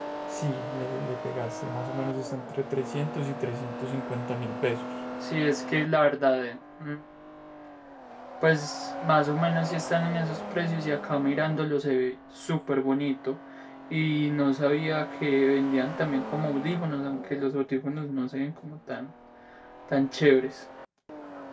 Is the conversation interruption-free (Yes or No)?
Yes